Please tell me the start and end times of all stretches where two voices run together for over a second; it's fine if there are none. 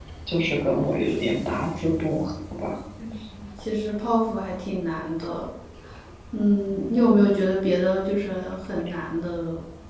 none

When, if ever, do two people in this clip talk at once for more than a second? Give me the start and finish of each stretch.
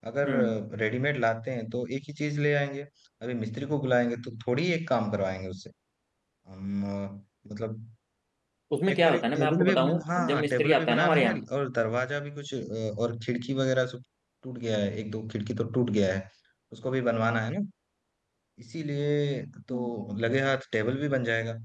8.9-11.4

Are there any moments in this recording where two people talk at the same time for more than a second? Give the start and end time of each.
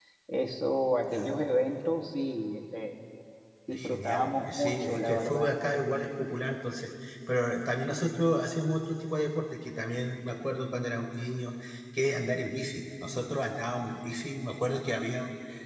3.7-5.5

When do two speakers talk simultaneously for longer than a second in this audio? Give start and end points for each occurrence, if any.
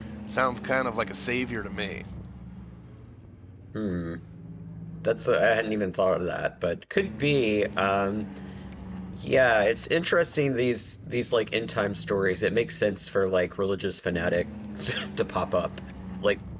none

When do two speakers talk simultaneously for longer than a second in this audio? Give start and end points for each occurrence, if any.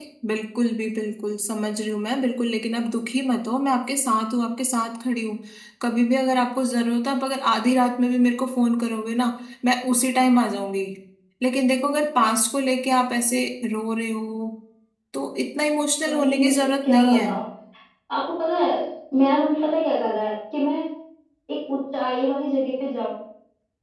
16.1-17.3

